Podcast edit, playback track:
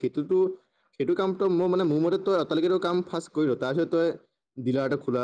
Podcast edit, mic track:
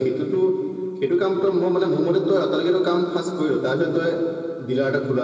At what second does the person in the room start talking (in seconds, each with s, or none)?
none